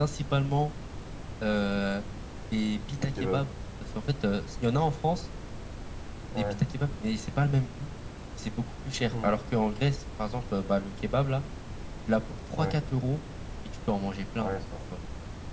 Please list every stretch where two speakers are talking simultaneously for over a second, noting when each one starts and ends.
none

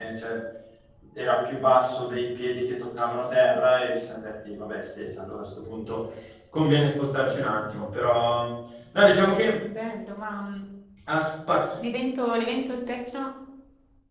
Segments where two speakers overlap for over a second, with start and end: none

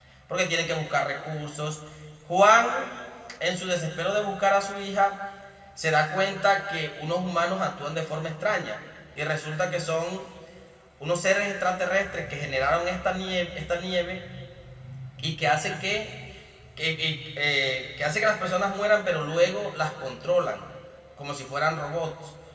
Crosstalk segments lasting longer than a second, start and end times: none

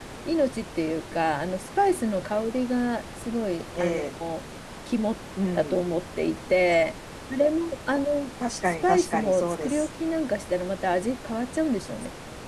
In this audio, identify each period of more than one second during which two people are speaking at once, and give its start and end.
8.6-9.9

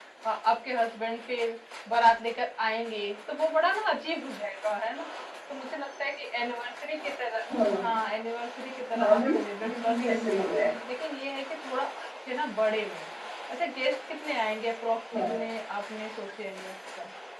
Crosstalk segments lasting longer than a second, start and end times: 9.2-10.5

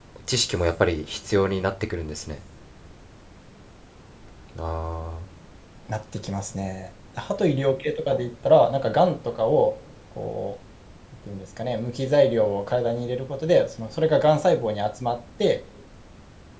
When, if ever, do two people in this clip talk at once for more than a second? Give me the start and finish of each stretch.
none

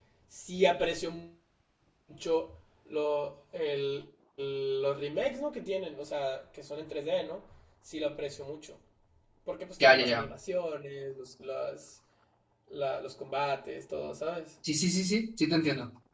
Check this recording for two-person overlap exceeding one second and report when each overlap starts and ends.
none

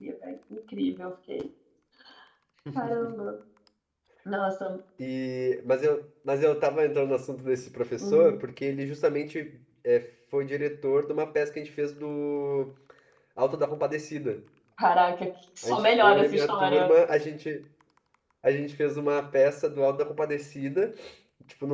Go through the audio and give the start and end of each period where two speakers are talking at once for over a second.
15.6-16.9

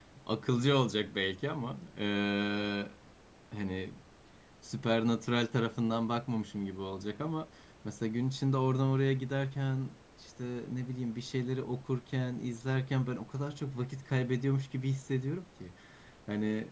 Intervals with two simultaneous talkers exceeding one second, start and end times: none

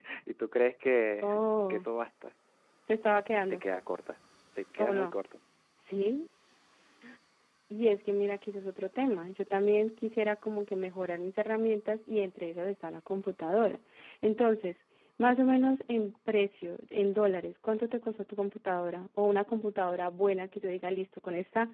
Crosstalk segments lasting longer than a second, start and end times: none

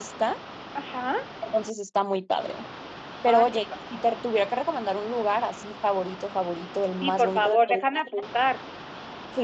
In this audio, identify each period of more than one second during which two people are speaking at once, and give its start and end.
7.0-8.2

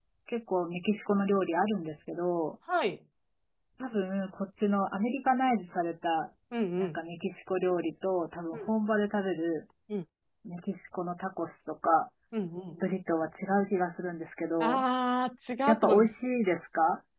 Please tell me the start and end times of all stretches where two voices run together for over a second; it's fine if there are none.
none

